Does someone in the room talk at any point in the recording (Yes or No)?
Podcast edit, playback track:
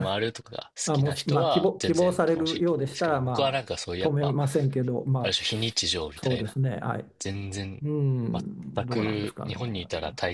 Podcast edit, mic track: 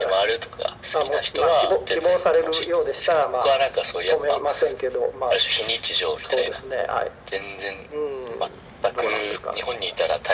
No